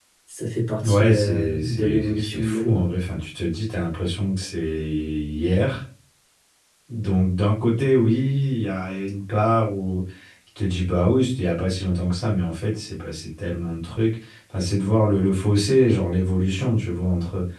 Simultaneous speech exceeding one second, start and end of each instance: 0.8-2.8

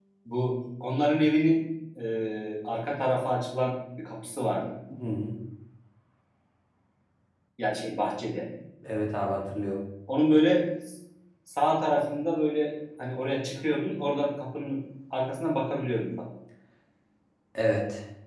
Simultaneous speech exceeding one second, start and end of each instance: none

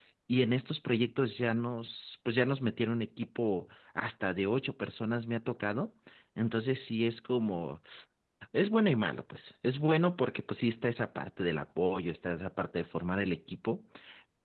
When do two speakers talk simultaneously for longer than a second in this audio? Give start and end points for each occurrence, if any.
none

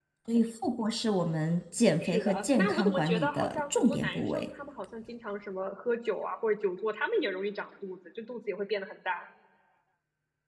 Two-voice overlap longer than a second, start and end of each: 2.0-4.5

